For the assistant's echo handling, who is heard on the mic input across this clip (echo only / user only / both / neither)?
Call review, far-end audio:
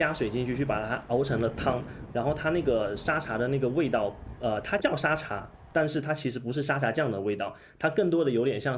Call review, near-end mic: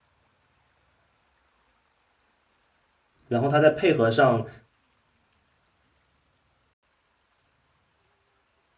user only